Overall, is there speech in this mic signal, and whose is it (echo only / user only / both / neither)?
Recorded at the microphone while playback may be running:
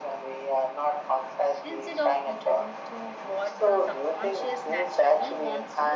both